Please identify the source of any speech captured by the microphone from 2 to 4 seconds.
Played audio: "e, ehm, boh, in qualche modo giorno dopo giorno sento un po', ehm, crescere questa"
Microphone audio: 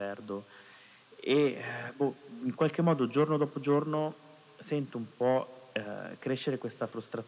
echo only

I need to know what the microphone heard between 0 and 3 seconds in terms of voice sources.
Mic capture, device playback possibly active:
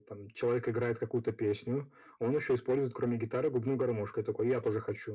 echo only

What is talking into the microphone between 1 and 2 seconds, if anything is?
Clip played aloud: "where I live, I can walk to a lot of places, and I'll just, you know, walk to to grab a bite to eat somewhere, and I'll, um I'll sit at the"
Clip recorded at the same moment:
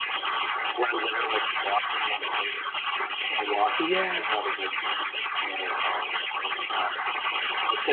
echo only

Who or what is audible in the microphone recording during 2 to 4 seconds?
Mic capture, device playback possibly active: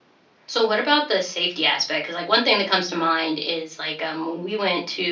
user only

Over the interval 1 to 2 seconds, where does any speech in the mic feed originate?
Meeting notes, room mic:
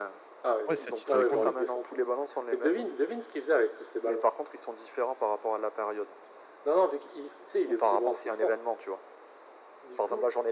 both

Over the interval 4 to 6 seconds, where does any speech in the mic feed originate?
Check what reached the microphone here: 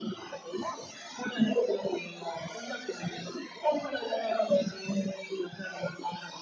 echo only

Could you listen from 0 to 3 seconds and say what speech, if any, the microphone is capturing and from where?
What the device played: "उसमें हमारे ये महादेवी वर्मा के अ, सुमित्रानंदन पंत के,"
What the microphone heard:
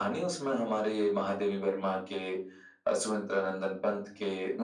echo only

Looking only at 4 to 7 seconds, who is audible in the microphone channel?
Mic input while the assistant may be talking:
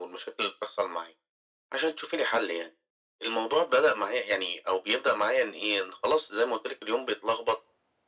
echo only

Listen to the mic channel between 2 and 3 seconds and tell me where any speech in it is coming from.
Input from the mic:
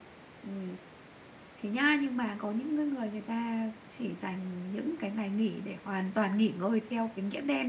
user only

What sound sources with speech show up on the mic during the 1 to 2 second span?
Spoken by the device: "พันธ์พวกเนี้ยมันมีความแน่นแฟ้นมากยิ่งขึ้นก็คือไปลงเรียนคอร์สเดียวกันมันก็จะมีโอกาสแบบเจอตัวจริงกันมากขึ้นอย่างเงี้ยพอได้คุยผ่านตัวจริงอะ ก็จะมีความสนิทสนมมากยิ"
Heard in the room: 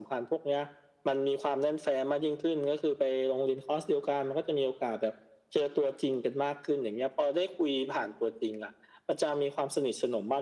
echo only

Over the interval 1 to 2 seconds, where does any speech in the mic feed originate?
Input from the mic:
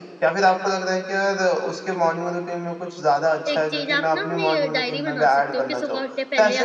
echo only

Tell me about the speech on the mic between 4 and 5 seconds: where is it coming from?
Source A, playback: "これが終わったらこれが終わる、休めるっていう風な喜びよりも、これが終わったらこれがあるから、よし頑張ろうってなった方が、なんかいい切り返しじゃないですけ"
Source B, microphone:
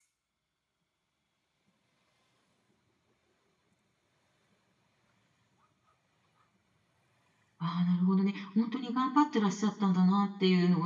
neither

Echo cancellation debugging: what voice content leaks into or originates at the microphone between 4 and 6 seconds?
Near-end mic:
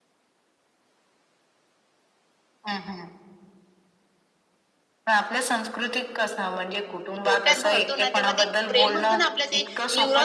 echo only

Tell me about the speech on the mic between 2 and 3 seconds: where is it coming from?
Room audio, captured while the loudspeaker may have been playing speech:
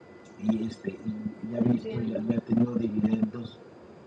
both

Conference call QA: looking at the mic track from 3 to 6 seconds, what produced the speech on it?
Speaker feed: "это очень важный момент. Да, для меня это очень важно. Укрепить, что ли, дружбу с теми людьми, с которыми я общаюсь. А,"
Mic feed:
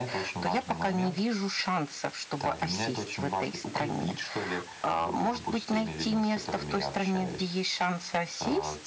both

